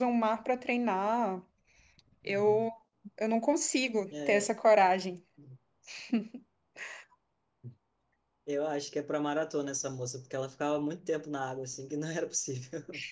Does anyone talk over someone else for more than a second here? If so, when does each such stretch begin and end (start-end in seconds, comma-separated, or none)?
none